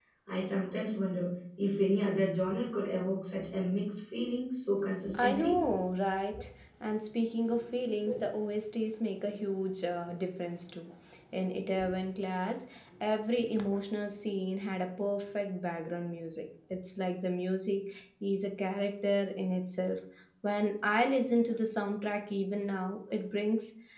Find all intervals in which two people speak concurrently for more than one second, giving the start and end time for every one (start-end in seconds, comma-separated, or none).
none